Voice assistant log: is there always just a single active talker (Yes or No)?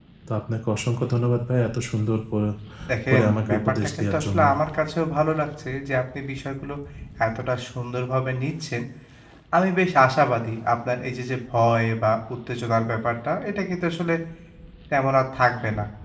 No